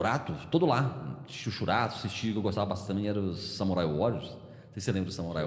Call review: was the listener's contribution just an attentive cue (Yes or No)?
No